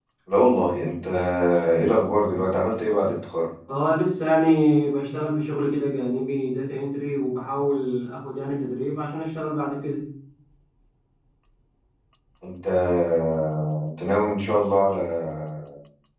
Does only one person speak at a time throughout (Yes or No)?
Yes